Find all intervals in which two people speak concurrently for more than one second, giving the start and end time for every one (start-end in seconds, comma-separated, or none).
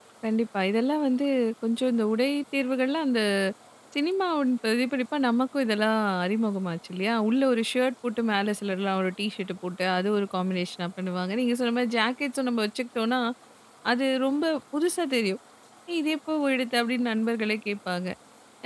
none